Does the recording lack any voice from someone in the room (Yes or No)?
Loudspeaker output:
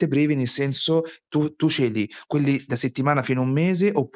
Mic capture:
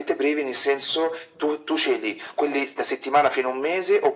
Yes